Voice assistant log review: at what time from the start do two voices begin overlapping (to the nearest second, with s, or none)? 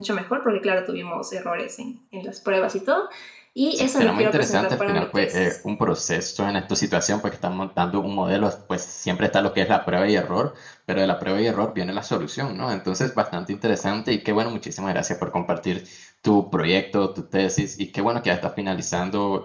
4 s